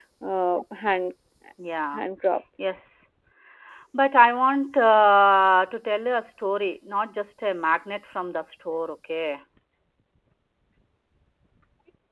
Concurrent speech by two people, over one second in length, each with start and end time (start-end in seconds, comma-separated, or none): none